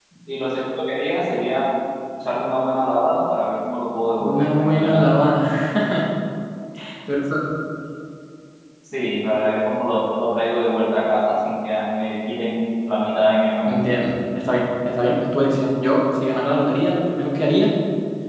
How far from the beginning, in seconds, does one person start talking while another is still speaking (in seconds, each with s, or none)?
4.2 s